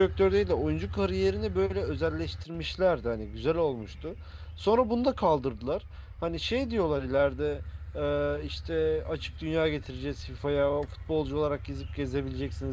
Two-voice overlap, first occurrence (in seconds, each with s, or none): none